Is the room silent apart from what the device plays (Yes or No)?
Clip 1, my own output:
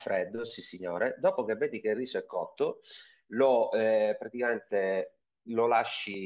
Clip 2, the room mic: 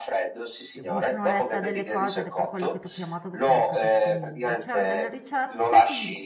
No